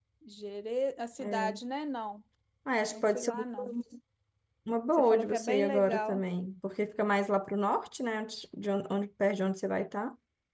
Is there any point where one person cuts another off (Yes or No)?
Yes